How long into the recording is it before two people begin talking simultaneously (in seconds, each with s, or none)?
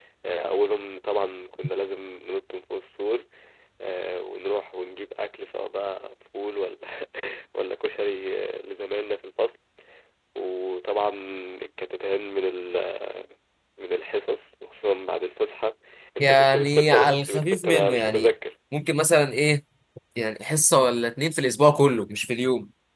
16.2 s